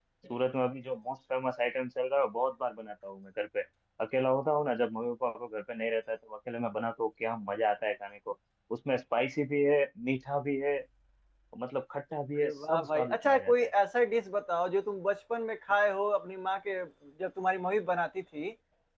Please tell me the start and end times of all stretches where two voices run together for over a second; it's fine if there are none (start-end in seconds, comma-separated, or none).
12.4-13.7